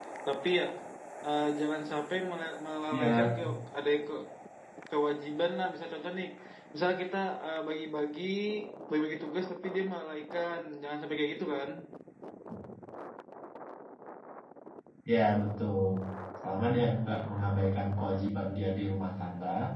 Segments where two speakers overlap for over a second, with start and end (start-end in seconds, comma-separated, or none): none